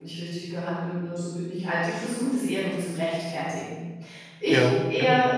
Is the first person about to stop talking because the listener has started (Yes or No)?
No